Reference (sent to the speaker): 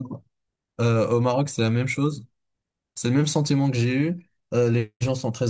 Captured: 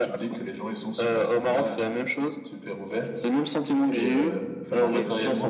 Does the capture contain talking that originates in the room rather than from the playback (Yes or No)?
Yes